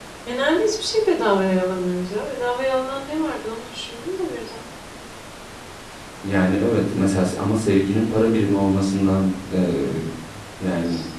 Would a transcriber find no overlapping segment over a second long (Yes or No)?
Yes